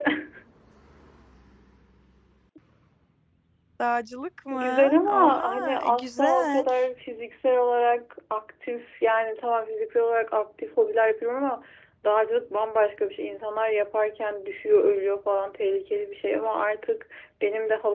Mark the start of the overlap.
4.5 s

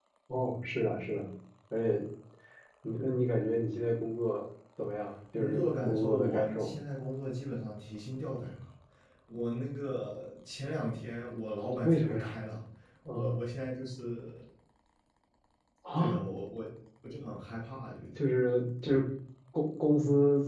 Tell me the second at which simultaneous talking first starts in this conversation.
5.4 s

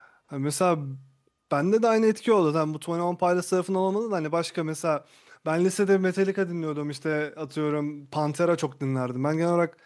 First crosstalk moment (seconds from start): none

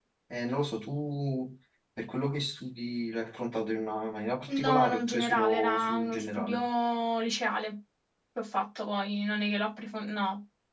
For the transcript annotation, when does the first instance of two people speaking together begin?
4.5 s

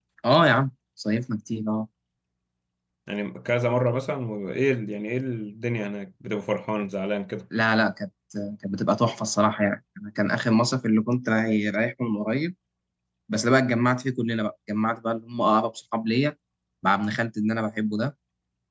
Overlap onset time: none

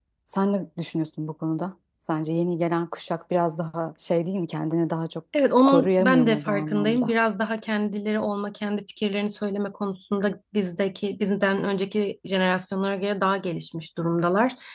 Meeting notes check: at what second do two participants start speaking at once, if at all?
5.7 s

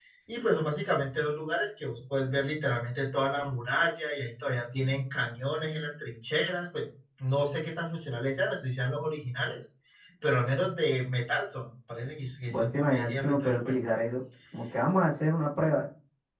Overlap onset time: 12.5 s

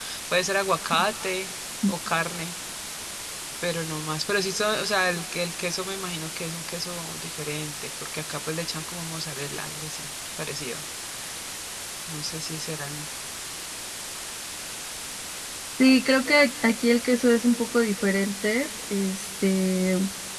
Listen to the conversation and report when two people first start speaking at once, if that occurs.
none

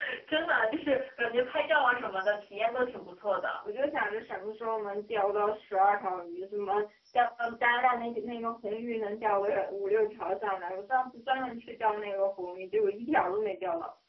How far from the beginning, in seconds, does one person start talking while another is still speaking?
none

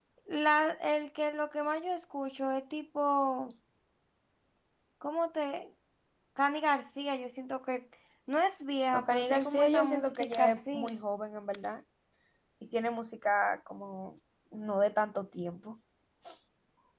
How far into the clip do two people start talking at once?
8.9 s

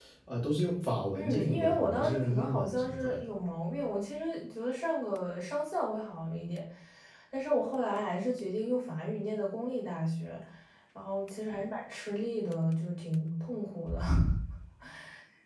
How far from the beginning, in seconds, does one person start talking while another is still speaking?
1.1 s

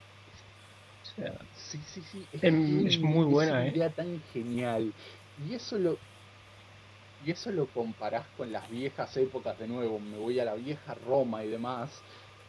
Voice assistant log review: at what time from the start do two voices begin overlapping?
2.4 s

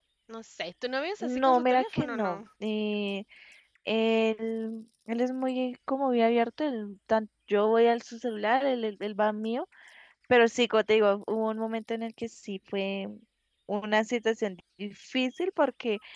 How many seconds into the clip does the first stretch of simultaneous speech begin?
1.2 s

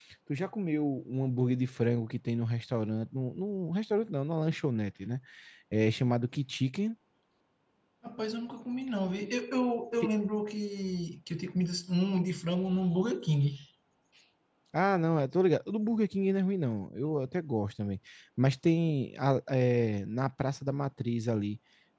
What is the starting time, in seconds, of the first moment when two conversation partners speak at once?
none

